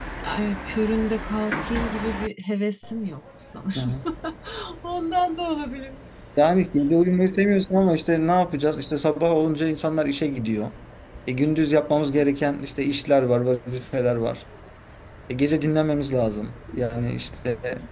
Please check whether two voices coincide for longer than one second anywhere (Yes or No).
No